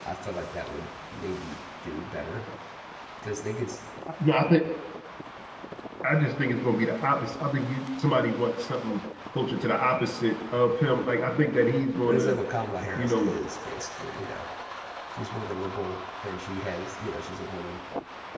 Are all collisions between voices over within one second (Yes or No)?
Yes